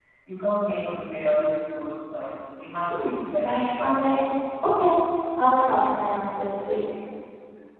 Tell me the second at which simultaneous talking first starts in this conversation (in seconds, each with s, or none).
2.9 s